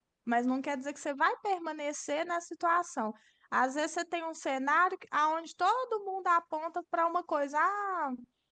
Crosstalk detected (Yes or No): No